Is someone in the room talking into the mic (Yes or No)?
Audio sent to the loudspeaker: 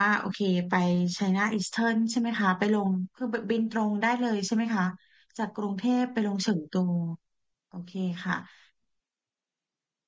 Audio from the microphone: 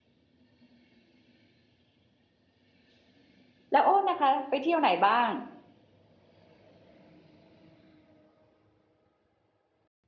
Yes